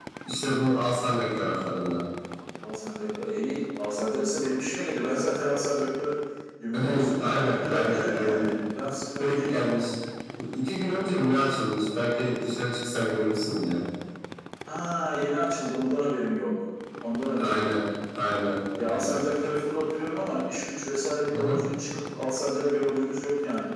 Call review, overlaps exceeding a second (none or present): present